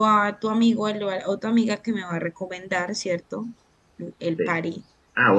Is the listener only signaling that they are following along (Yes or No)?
No